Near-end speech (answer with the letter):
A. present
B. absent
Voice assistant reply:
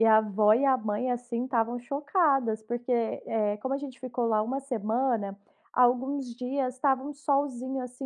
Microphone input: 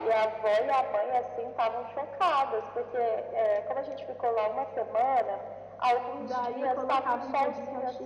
A